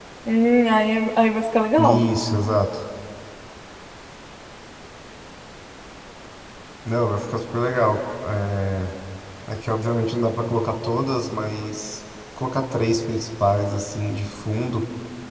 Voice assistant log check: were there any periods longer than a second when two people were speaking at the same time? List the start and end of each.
none

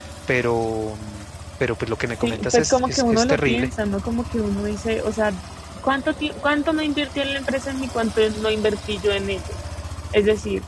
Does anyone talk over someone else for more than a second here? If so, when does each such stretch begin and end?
2.2-3.7

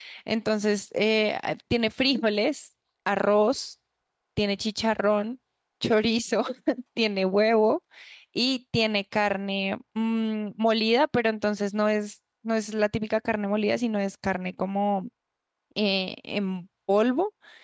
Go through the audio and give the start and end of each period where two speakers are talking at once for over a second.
none

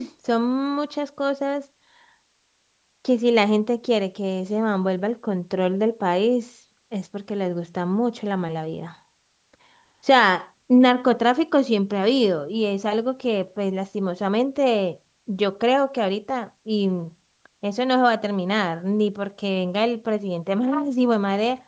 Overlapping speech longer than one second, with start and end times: none

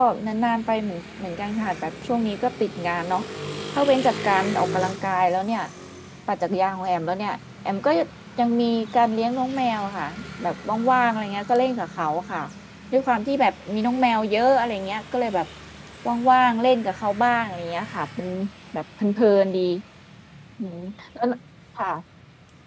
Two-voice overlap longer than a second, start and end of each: none

